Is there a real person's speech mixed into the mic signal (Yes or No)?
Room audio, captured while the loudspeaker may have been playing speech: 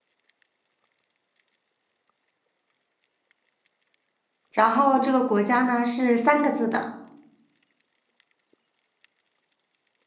Yes